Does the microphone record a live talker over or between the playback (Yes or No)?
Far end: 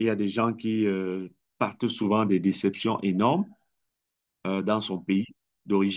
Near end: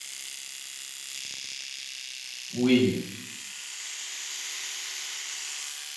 Yes